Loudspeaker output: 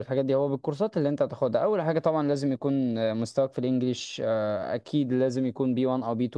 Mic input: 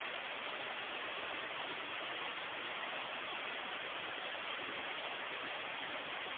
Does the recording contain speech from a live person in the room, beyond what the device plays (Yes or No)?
No